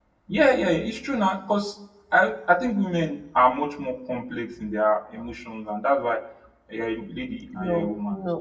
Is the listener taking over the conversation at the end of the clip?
Yes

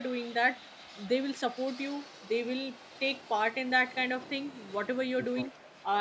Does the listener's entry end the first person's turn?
No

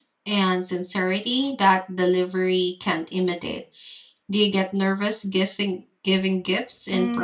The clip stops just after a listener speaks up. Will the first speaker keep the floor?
No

